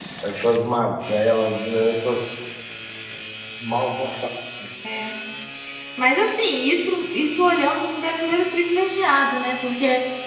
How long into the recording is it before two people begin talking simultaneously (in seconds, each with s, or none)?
none